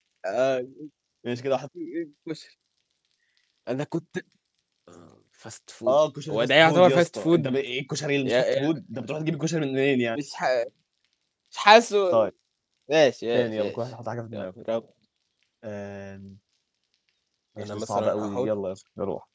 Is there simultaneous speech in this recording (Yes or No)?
Yes